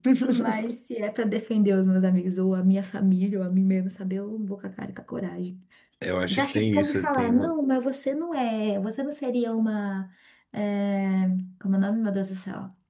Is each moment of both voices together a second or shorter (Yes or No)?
No